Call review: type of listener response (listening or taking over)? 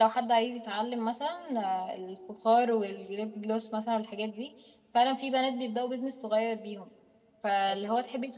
listening